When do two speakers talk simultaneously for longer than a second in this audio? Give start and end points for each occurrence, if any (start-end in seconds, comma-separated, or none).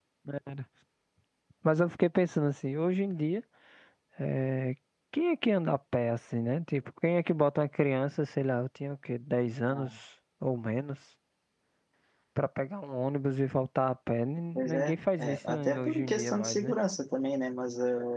14.6-16.7